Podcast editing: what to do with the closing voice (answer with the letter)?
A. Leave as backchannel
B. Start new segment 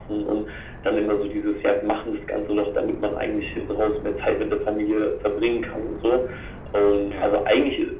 A